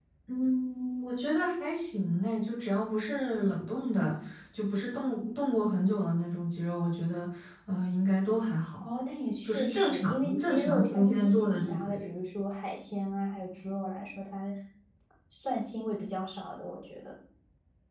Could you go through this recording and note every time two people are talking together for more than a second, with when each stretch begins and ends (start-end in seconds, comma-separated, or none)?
9.4-12.1